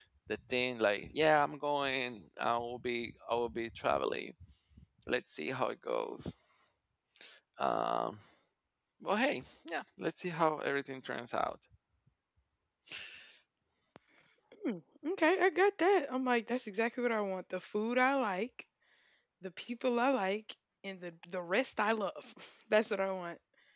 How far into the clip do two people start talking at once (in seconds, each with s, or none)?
none